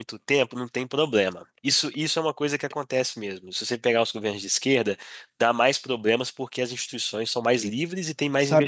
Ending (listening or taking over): taking over